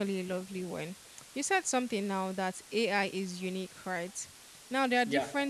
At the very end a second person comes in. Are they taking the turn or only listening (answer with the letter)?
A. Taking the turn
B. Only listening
B